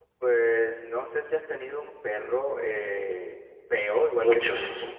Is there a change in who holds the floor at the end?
No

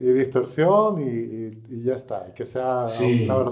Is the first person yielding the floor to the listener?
Yes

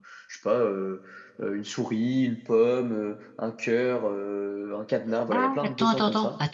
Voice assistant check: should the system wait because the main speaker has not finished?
No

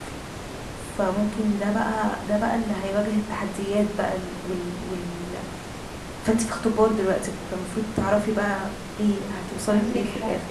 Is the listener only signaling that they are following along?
No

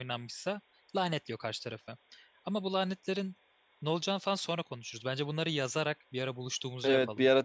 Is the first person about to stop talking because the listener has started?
Yes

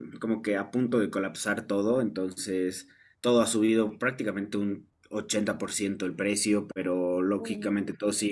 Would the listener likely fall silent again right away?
Yes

